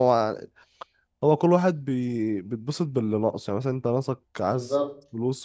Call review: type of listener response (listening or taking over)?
listening